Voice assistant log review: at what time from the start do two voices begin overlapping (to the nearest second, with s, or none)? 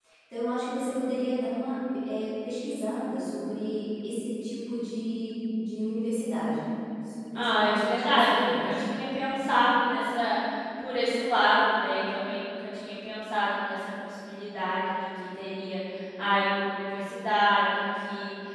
7 s